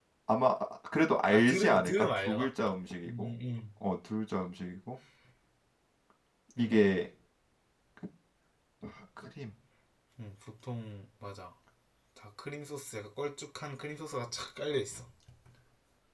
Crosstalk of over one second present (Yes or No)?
Yes